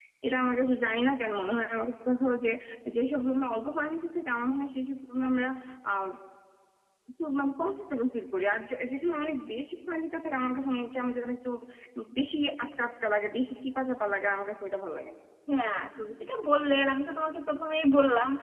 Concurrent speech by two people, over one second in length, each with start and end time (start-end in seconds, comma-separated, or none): none